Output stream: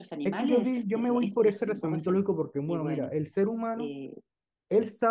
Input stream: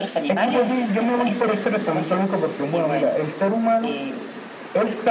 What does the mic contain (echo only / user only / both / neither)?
echo only